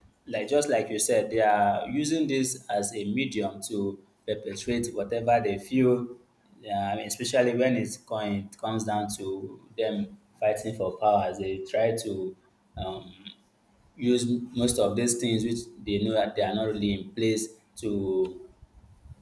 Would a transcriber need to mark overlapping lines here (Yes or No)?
No